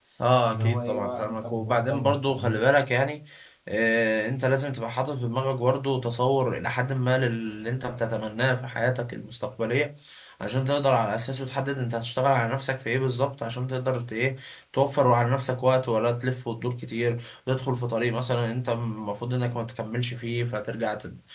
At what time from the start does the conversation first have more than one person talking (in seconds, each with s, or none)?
0.5 s